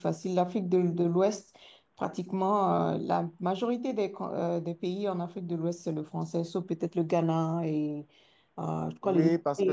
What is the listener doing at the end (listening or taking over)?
taking over